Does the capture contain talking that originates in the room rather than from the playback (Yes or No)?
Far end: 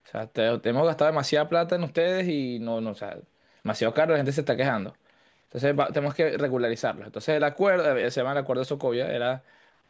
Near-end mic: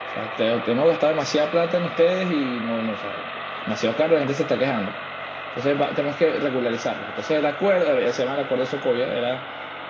No